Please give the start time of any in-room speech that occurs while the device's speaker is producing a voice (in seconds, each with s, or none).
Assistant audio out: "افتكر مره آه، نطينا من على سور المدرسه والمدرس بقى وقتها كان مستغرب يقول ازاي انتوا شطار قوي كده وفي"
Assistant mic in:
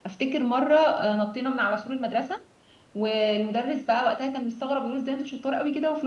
none